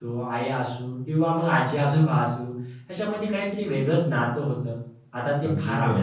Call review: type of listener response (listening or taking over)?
listening